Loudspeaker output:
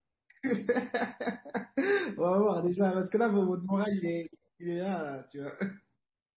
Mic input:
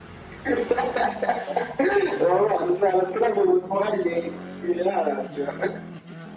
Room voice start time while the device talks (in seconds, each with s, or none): none